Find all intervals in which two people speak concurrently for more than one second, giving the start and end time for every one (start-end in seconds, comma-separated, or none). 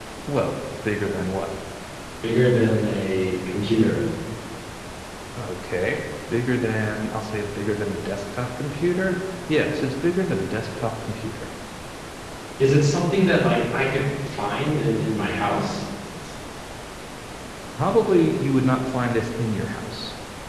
none